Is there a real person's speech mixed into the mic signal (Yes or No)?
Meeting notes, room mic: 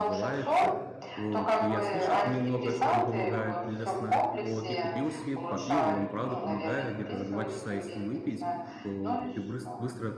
Yes